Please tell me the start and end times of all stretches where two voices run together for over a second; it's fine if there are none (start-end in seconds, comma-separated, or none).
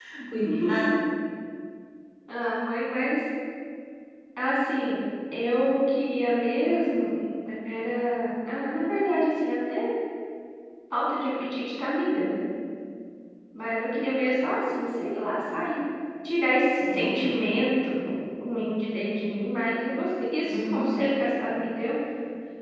none